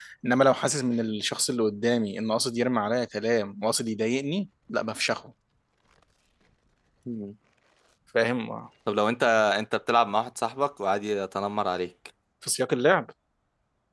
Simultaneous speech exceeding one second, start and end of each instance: none

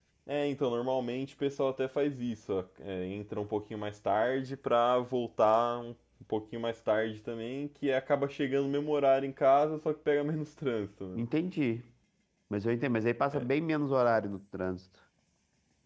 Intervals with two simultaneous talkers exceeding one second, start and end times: none

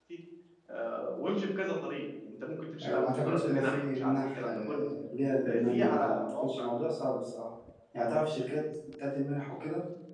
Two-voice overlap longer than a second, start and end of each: 2.8-4.9, 5.4-6.7

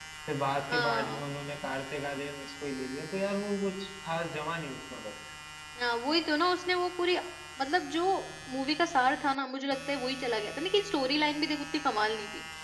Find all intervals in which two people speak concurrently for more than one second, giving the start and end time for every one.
none

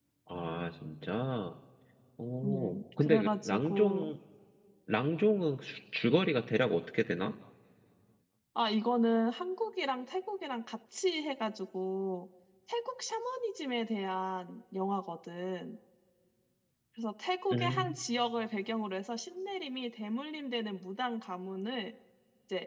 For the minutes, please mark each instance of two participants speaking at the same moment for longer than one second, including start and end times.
2.4-4.1

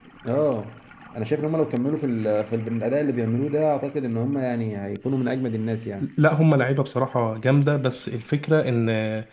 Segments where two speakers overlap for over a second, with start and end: none

